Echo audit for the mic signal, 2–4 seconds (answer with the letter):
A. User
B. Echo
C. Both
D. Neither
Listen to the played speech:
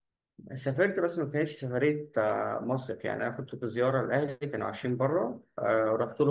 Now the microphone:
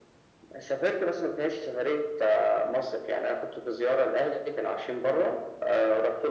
B